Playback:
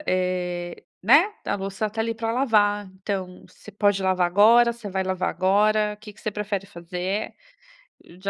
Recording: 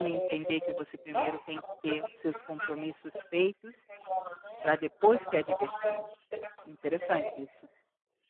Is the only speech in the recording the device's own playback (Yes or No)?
No